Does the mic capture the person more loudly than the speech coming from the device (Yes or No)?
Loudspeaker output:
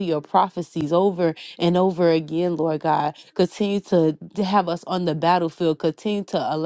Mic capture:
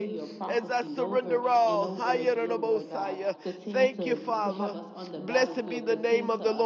Yes